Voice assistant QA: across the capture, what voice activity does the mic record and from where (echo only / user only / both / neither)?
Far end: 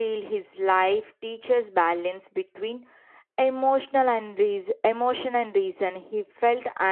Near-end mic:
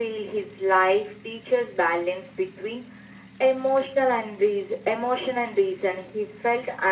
echo only